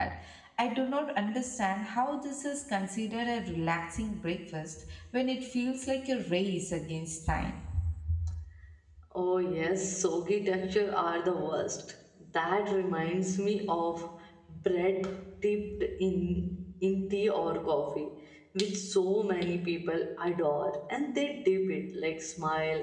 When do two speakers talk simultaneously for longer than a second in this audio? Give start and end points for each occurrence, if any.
none

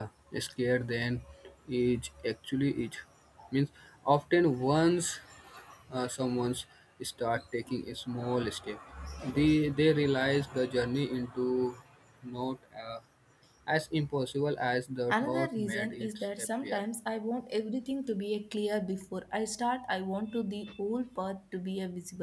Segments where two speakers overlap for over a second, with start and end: 15.1-16.8

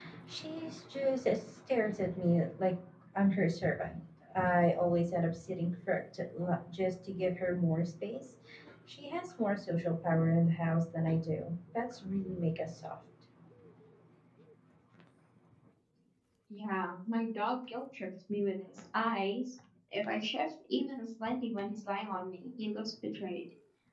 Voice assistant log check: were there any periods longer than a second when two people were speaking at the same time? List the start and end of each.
none

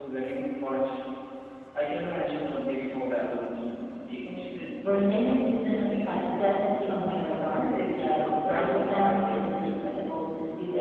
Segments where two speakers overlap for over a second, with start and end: 4.8-6.6, 7.4-9.9

